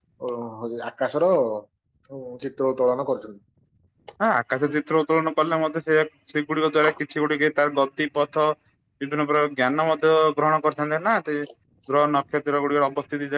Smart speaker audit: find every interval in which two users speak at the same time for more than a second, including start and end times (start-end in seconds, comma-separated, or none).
none